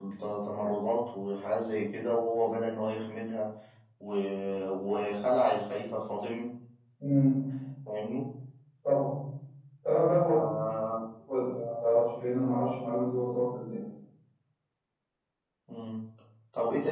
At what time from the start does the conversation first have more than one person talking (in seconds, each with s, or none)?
none